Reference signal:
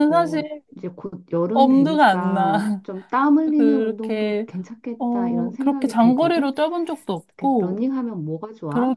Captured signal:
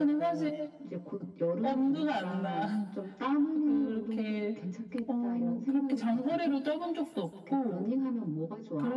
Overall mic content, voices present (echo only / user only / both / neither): echo only